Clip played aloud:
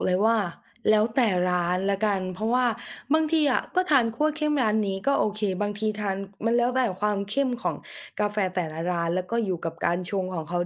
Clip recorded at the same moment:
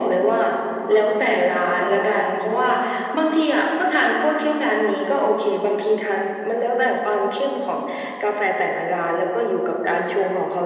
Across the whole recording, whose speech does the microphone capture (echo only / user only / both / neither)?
echo only